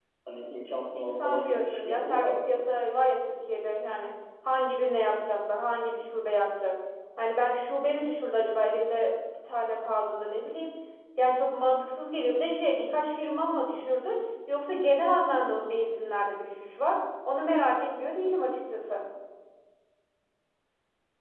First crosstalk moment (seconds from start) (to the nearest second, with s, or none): 1 s